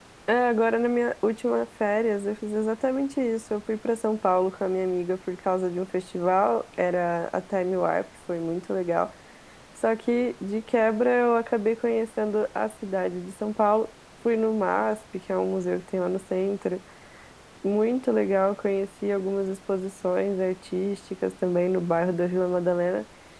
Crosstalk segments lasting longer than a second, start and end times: none

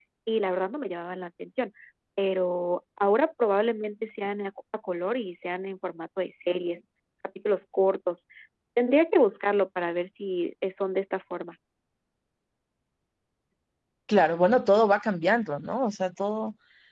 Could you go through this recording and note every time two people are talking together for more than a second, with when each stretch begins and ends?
none

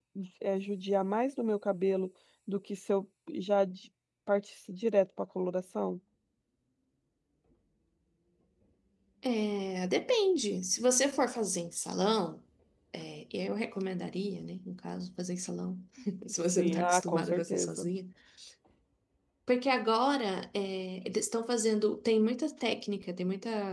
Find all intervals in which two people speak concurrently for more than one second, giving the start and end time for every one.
16.6-17.9

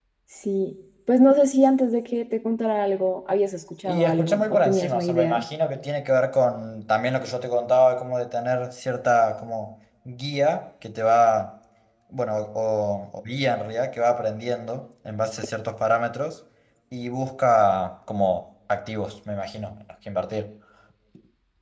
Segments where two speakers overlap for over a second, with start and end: 3.8-5.4

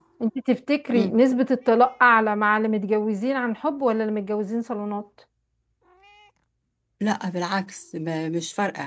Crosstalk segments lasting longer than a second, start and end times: none

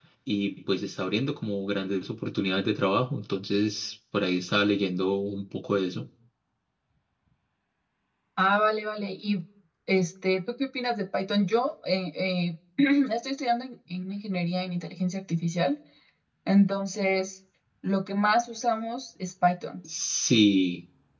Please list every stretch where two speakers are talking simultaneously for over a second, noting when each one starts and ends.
none

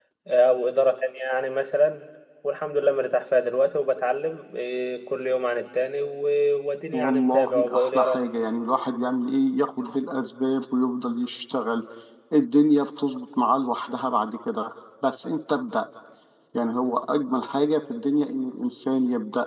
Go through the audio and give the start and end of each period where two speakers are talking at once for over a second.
6.9-8.2

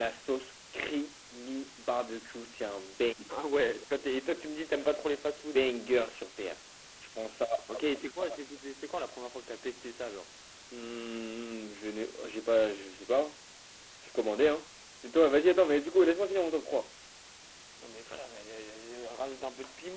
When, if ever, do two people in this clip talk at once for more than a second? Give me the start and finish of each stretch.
none

